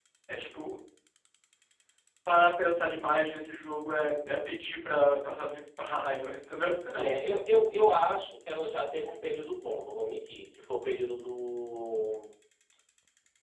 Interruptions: none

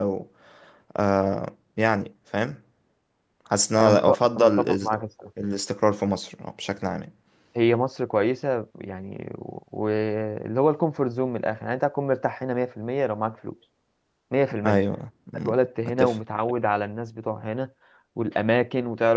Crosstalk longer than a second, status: present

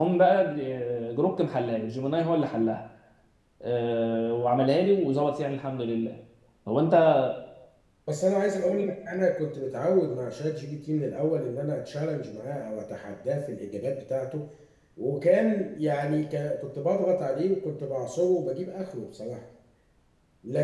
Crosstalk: none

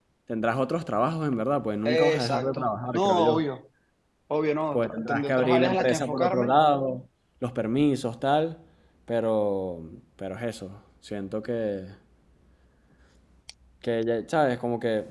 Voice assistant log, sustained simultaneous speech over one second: present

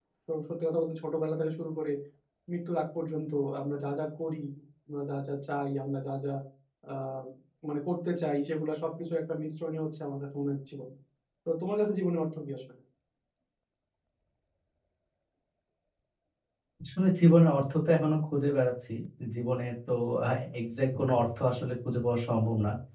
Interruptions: none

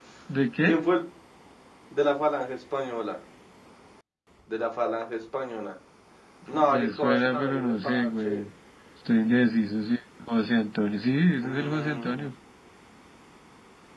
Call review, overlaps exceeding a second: present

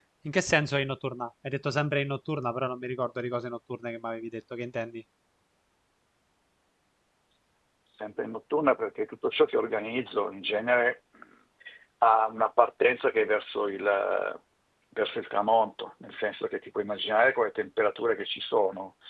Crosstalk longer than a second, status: none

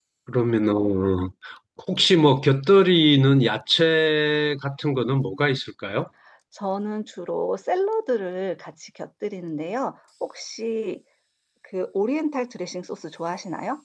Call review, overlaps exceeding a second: none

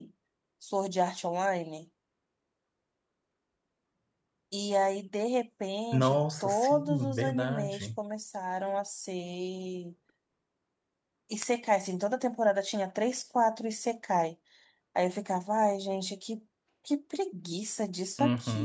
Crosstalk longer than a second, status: present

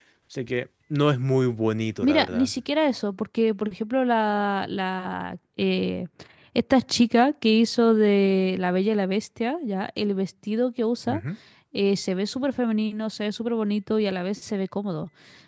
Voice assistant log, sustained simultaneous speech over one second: none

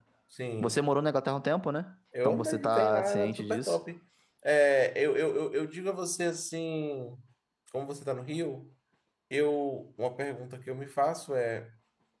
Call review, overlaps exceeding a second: present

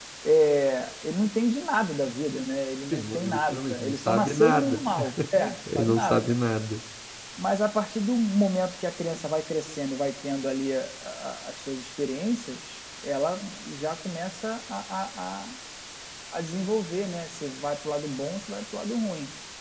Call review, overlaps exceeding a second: present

